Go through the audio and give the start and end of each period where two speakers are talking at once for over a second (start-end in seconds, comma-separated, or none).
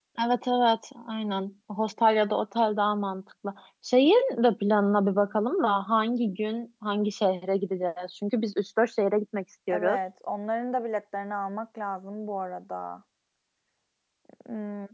none